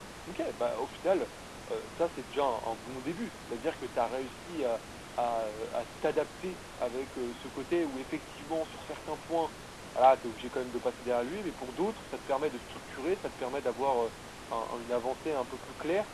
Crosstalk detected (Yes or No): No